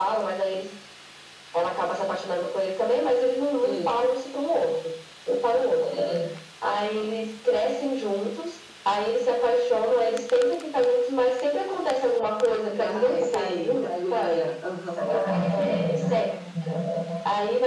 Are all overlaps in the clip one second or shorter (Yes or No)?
No